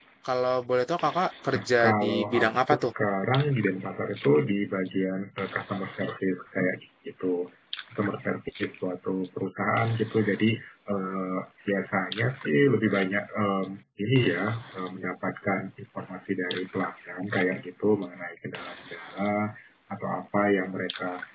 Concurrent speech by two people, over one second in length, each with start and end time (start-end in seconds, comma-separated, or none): 1.5-2.9